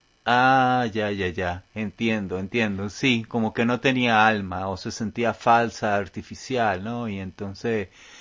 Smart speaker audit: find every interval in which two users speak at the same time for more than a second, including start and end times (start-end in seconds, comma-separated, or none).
none